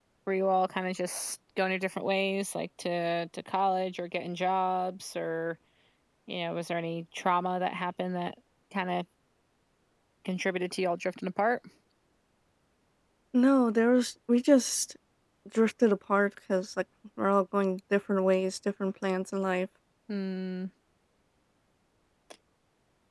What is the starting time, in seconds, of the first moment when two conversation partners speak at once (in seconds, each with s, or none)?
none